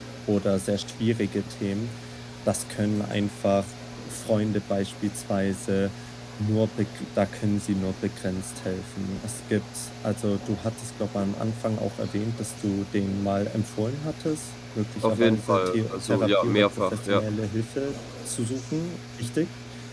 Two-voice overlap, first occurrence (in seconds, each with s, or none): 15.0 s